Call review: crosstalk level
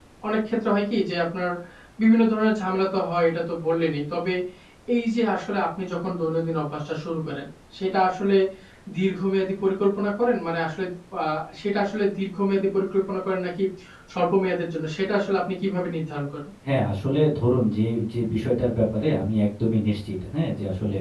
none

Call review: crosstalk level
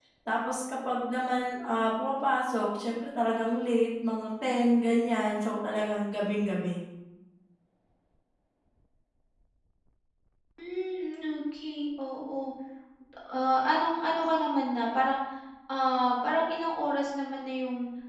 none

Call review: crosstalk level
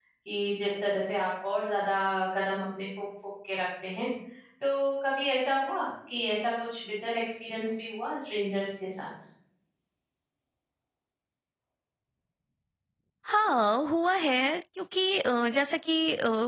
none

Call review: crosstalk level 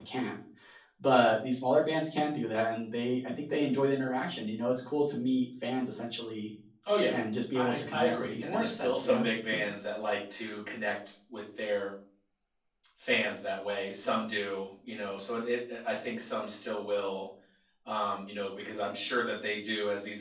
present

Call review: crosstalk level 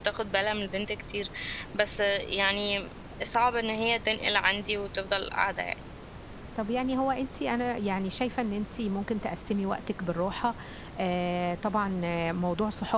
none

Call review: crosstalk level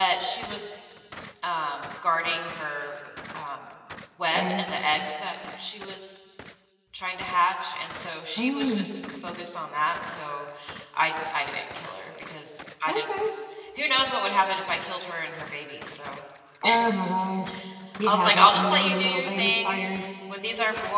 present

